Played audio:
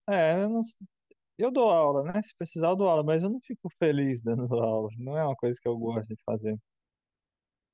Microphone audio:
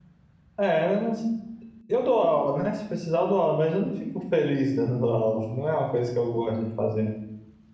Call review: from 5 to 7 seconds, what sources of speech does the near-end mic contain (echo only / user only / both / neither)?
echo only